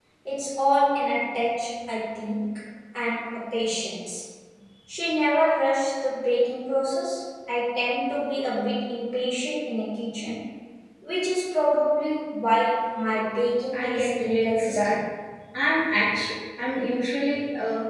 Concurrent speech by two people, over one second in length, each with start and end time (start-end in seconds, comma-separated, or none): 13.7-15.0